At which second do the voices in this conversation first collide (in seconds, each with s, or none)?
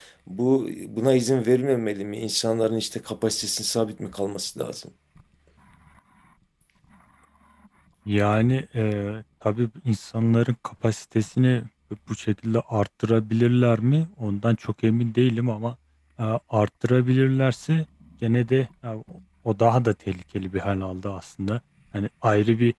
none